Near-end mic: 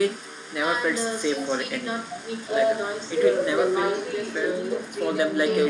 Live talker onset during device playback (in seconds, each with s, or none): 2.4 s